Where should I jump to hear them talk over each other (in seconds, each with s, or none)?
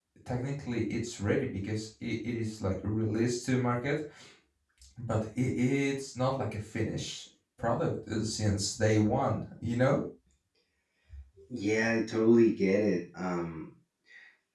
none